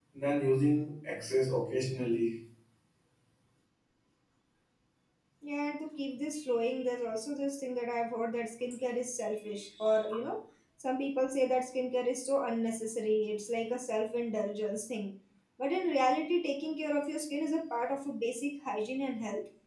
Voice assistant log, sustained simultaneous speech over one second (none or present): none